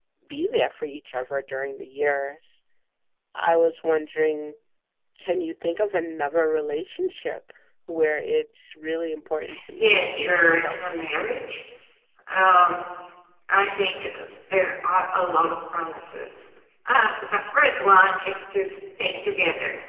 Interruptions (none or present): present